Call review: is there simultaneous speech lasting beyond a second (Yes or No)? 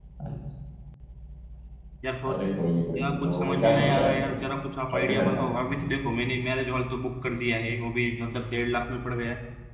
Yes